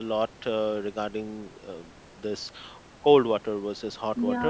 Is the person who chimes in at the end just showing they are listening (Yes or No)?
No